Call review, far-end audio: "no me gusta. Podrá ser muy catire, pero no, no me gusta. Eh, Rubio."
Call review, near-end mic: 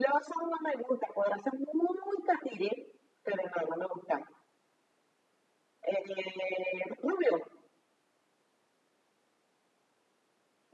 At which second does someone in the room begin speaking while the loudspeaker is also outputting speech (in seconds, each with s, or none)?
none